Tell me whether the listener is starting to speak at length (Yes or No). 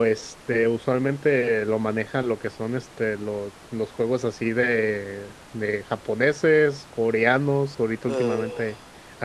No